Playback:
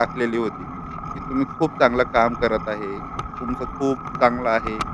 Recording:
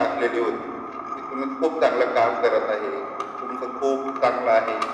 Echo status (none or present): present